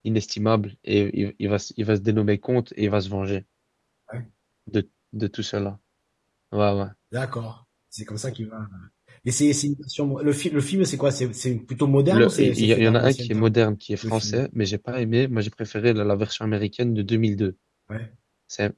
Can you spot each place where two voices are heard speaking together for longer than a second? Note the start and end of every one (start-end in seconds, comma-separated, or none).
12.1-13.5